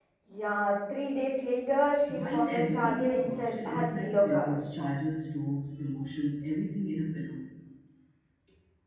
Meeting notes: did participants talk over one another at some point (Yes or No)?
Yes